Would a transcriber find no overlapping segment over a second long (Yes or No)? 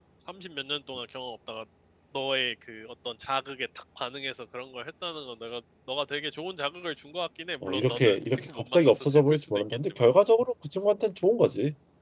No